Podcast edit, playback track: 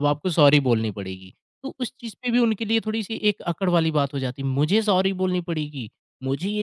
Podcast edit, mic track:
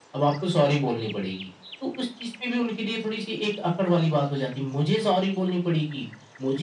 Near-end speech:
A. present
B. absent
B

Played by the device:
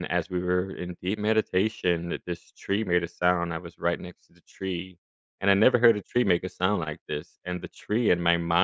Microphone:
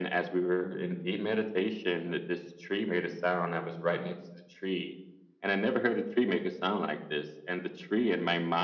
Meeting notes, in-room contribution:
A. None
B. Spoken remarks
A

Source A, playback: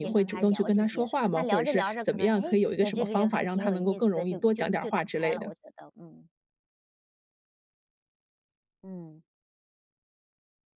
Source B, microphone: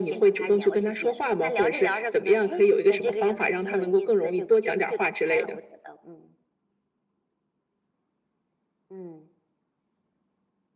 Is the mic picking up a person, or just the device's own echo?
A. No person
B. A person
A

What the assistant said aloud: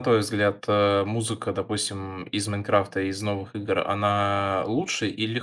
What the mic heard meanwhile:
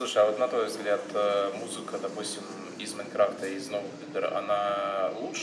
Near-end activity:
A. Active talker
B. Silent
B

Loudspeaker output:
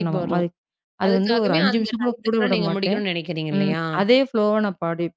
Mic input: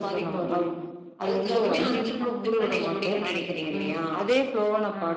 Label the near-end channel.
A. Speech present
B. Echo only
A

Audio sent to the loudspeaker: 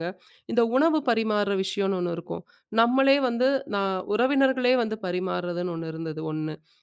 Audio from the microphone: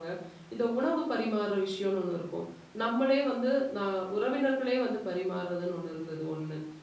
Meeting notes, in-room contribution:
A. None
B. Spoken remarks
A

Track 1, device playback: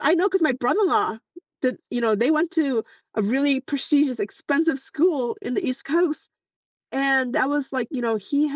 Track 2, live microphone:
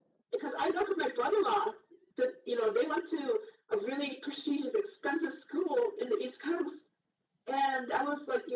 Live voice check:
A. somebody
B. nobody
B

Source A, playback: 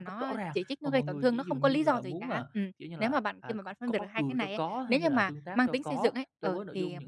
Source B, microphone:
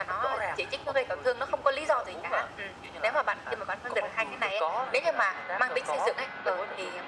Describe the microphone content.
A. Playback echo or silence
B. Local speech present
A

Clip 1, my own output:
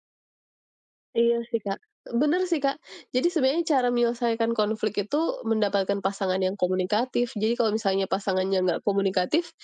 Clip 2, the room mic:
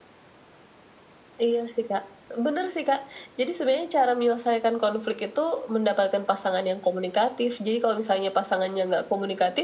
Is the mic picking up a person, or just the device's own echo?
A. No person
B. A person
A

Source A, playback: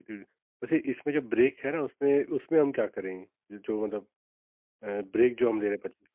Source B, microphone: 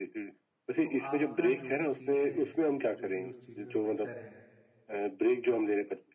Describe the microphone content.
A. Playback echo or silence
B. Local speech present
B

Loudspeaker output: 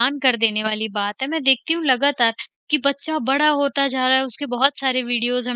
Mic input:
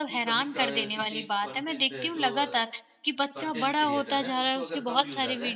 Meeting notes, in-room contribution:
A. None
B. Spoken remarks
B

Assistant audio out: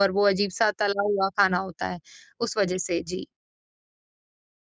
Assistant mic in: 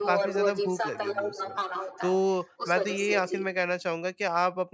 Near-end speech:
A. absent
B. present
B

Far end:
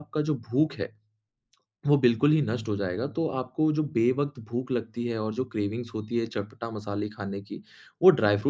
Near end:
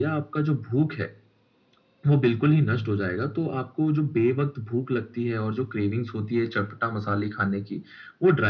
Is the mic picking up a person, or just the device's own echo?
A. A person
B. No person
B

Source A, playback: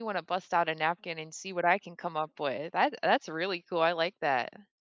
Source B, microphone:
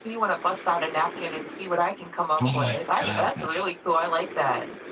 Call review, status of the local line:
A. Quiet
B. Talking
B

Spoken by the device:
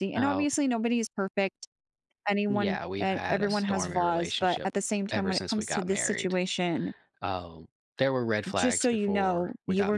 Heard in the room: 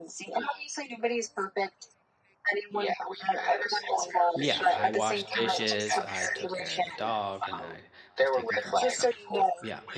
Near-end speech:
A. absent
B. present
B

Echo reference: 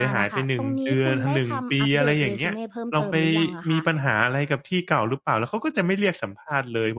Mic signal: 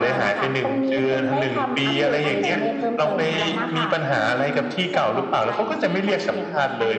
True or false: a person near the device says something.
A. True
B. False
A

